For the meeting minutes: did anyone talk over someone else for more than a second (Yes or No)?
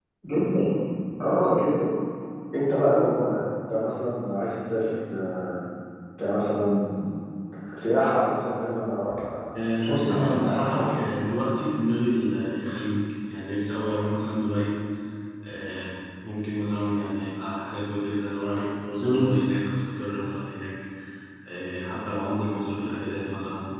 Yes